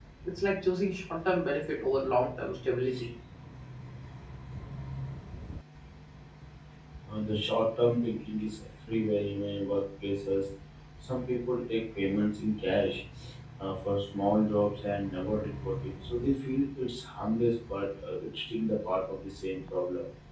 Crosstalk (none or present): none